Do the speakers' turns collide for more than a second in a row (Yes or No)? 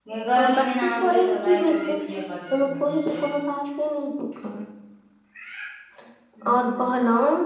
Yes